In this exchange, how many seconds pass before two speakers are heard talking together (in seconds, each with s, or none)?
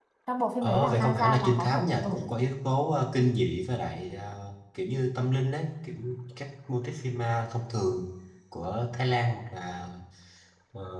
0.6 s